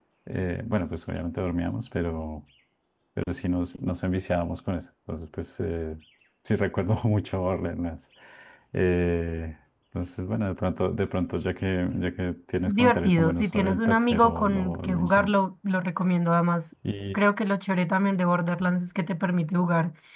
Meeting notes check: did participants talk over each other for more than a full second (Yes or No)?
Yes